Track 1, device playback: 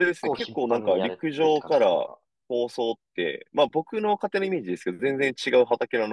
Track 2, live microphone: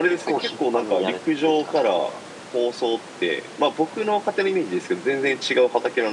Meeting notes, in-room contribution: none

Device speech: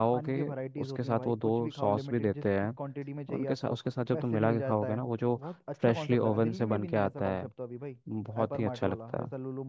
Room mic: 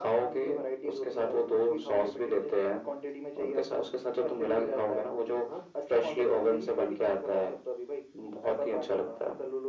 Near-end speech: none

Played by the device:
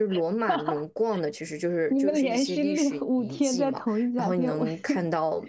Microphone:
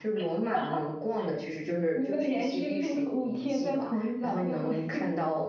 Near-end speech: none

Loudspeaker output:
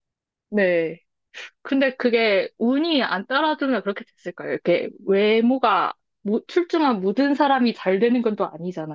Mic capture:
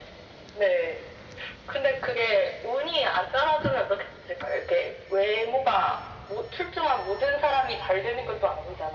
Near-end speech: none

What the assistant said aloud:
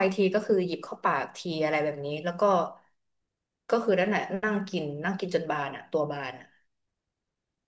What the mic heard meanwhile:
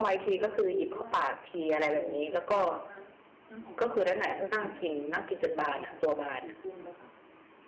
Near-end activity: present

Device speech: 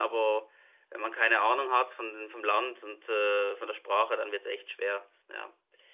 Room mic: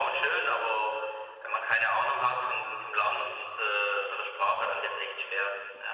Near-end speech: none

